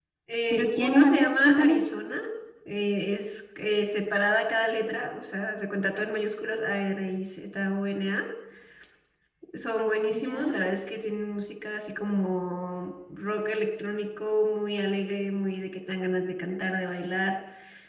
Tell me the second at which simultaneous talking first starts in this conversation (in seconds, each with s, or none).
0.5 s